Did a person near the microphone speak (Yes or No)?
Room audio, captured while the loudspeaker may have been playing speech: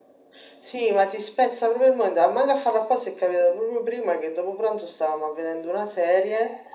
No